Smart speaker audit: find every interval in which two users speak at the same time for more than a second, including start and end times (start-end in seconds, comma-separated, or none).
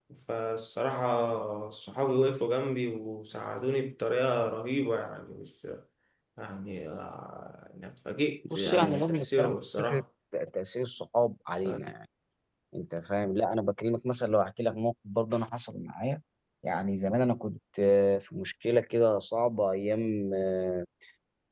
8.5-10.0